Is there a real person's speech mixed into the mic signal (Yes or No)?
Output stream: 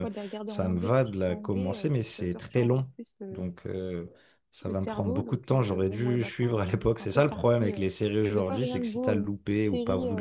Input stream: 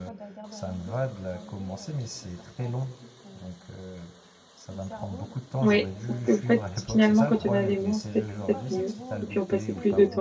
Yes